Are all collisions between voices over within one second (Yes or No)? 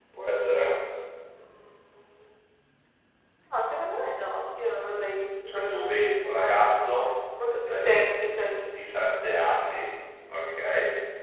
No